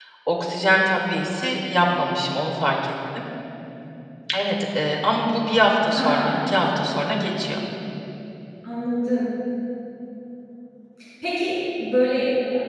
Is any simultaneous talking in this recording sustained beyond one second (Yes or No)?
No